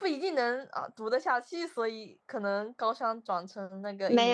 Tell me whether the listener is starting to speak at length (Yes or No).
Yes